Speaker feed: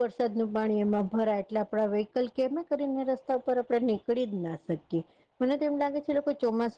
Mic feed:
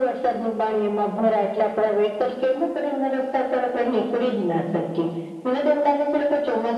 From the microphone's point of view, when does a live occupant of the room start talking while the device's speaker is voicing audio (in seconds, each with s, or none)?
none